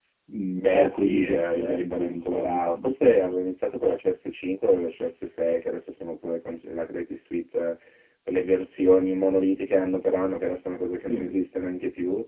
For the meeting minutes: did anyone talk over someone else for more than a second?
Yes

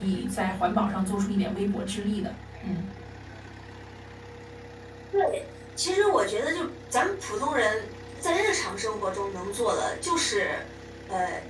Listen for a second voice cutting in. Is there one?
No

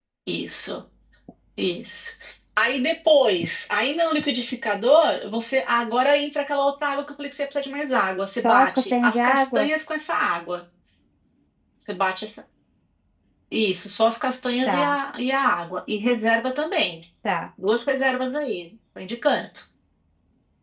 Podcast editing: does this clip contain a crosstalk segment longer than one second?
Yes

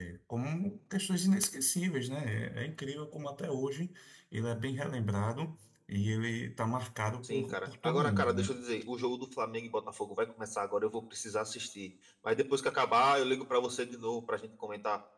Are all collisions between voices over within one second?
No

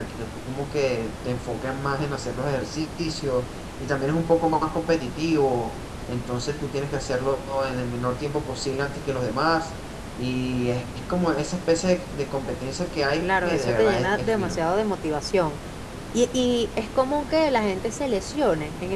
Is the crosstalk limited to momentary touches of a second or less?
No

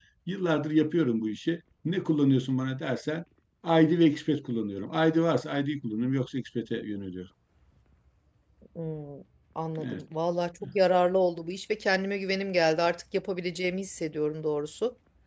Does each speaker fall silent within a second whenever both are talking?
Yes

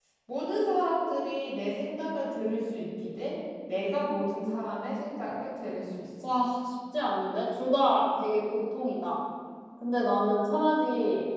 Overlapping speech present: No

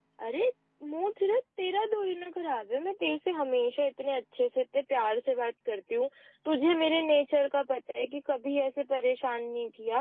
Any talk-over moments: No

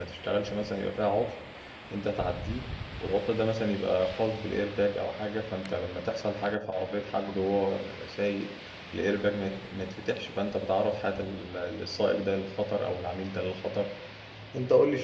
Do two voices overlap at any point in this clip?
No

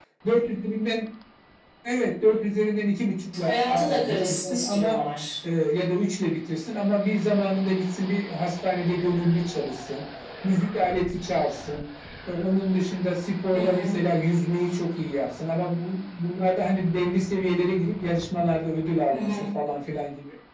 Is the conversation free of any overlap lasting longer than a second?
No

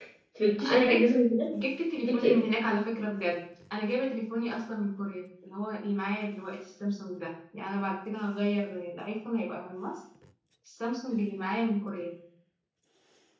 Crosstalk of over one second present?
No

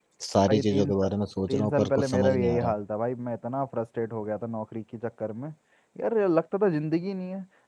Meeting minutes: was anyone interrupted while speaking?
Yes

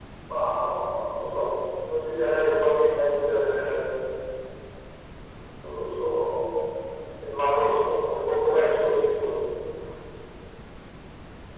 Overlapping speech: No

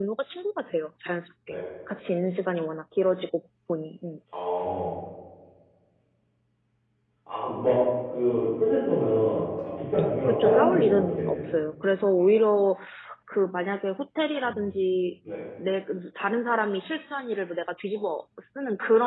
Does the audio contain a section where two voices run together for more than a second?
Yes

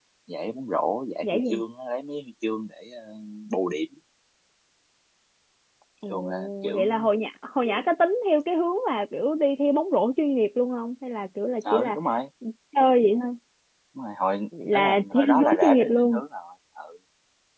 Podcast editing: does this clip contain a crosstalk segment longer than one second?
Yes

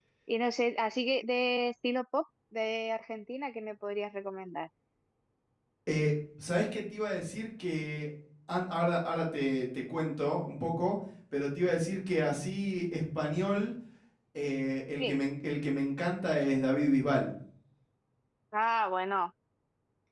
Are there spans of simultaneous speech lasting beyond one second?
No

